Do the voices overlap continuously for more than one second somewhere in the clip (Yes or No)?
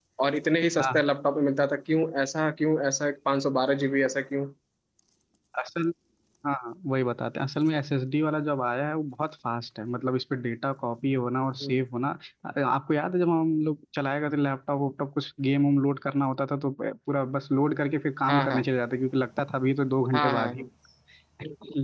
No